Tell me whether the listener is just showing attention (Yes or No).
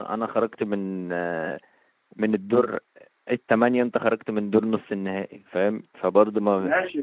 No